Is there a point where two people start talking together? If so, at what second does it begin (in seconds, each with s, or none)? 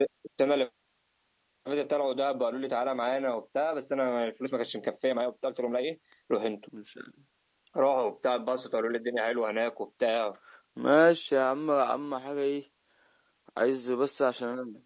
none